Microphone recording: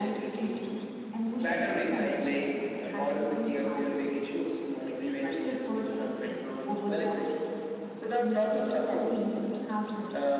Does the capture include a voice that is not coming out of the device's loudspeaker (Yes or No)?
No